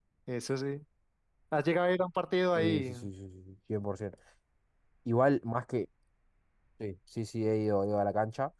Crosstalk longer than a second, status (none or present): none